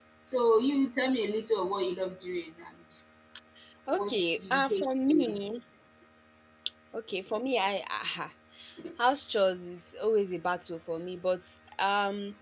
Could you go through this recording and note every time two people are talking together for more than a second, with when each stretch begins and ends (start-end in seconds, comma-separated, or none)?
4.0-5.4